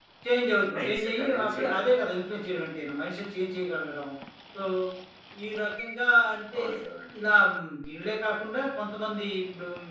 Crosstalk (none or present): present